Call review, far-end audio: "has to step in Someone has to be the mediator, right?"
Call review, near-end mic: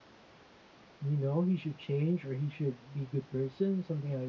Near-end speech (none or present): present